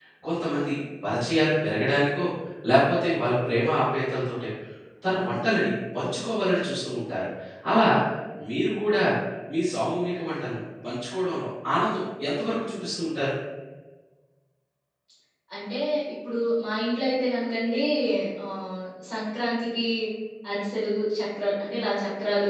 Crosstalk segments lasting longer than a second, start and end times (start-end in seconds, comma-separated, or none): none